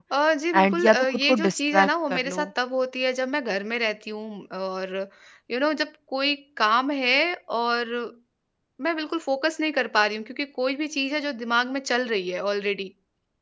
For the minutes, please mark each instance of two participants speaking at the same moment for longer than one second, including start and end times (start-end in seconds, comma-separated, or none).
0.5-2.5